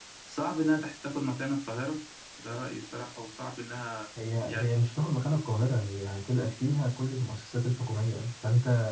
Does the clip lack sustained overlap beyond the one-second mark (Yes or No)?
Yes